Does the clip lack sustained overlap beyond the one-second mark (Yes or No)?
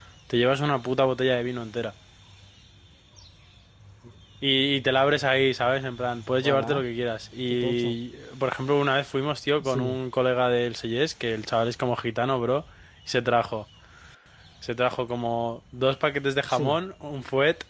Yes